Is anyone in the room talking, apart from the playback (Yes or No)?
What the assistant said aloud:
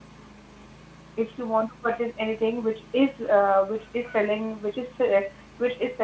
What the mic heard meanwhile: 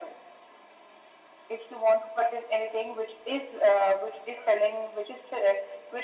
No